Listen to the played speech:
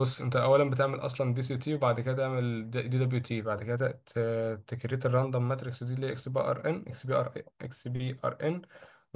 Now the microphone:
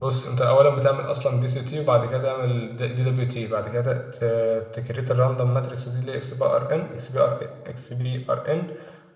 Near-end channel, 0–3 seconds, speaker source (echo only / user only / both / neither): echo only